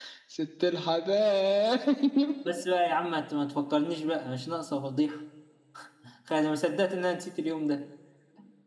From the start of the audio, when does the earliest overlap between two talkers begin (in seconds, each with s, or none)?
none